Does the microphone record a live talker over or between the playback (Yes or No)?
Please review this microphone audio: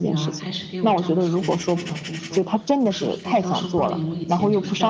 Yes